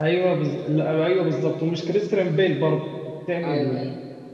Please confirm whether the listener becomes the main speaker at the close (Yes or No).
No